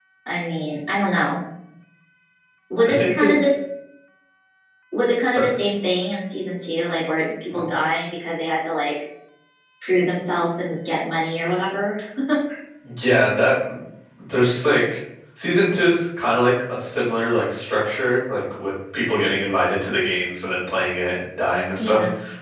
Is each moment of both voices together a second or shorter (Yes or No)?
Yes